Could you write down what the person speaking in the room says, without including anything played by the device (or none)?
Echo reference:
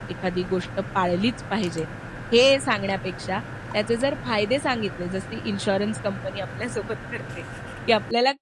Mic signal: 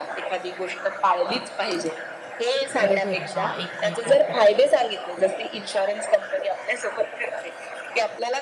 बरोबर, हा एक वेगळा प्रकार,